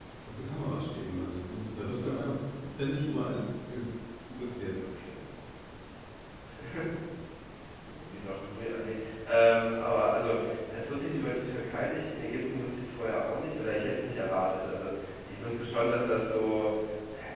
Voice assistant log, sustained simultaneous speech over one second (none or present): none